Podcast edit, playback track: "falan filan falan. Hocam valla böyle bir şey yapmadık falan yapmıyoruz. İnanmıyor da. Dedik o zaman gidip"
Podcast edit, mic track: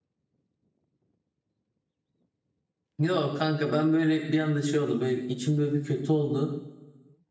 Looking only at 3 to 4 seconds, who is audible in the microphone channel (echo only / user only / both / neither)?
user only